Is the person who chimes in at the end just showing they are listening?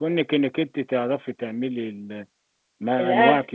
Yes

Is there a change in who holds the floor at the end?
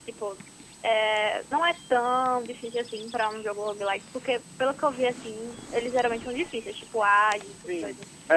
Yes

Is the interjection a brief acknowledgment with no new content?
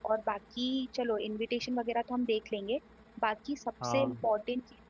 Yes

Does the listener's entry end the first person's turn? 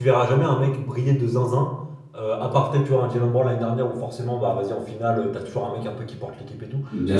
No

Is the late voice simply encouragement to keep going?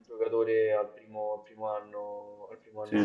Yes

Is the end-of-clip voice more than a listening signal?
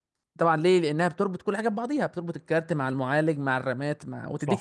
Yes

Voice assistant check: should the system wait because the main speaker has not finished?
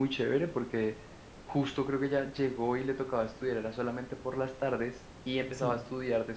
Yes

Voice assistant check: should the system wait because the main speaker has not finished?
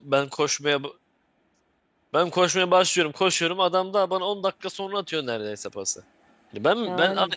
No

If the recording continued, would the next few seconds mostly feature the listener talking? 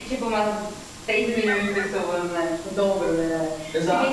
Yes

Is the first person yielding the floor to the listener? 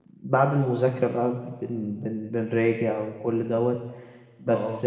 No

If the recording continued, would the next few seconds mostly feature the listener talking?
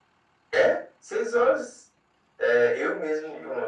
No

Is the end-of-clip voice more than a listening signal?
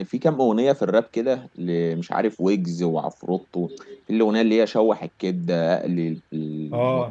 Yes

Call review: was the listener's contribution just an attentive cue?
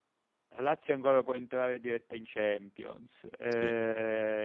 Yes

